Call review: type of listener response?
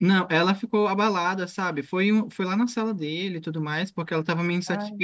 listening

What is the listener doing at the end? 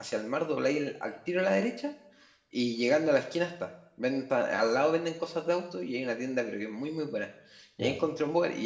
listening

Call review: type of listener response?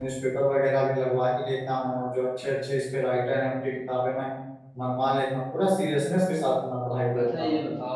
taking over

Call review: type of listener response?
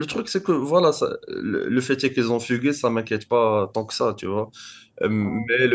listening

